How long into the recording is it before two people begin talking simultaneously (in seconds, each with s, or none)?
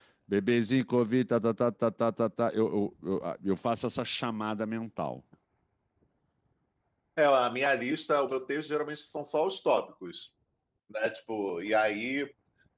none